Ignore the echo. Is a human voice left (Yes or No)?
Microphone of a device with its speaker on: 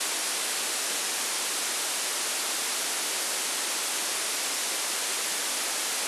No